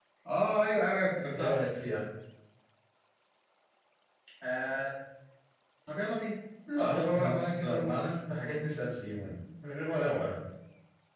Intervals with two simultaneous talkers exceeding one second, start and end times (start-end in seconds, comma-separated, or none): 6.8-8.1